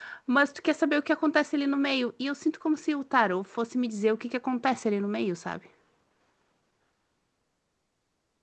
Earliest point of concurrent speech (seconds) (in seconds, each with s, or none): none